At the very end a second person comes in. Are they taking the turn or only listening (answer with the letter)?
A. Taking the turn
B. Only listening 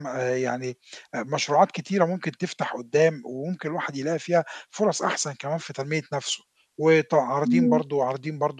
B